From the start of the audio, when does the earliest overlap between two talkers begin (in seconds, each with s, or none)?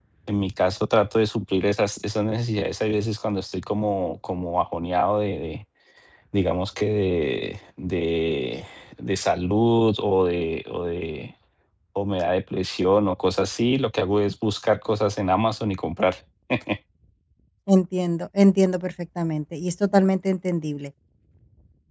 none